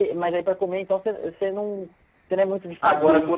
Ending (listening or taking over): taking over